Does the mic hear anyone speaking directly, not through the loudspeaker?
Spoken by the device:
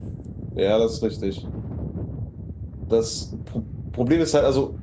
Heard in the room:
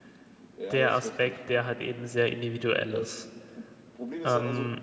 Yes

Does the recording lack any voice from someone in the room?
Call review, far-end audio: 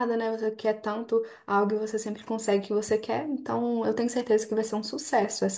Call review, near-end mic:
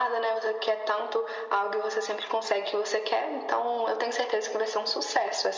Yes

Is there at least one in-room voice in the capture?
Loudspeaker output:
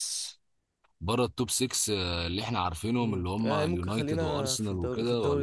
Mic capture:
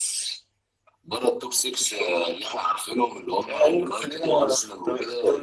No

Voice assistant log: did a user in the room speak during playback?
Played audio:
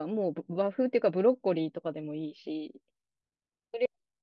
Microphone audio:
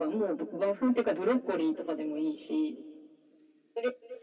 No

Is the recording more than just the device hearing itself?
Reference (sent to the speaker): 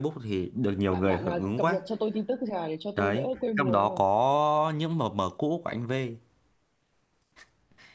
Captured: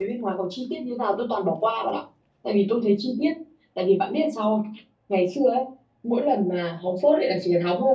Yes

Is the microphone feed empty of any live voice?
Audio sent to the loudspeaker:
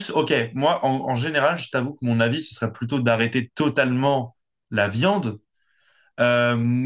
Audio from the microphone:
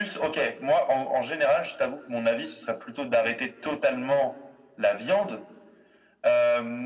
Yes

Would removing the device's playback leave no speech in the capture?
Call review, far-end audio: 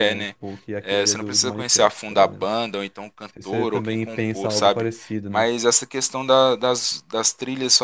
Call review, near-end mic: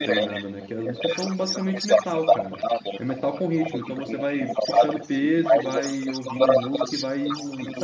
No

